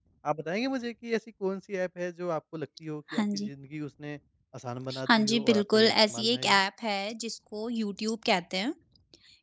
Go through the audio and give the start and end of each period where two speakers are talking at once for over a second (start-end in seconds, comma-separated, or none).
5.1-6.6